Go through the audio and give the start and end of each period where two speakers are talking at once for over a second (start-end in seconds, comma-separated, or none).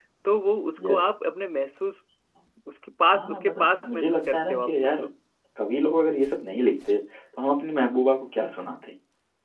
3.0-5.0